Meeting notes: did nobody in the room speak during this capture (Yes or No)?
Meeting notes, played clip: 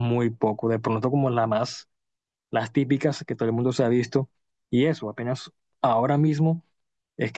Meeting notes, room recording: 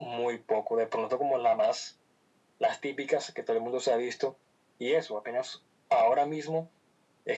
Yes